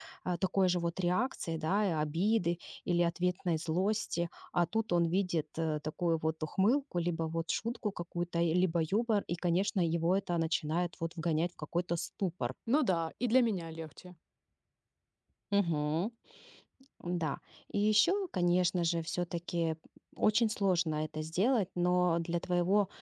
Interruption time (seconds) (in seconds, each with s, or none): none